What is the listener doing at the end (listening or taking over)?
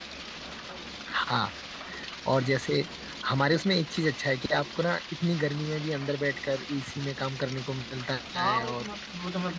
taking over